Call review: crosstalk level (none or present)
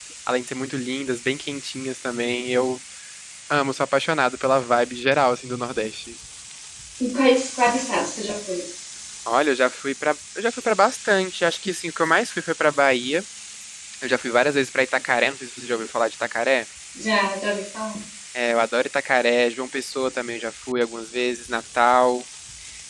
none